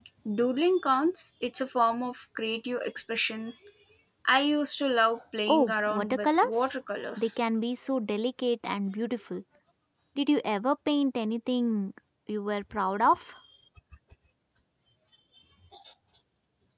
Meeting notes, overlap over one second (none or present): present